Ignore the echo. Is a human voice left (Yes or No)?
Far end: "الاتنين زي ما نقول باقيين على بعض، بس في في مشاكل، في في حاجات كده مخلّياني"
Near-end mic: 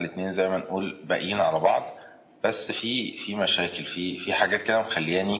No